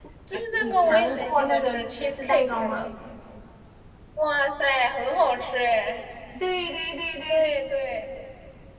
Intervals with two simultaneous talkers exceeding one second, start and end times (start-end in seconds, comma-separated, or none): 0.6-2.9